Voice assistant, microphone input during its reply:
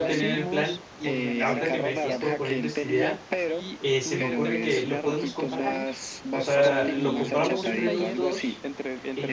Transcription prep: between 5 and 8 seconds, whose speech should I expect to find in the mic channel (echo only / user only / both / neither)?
both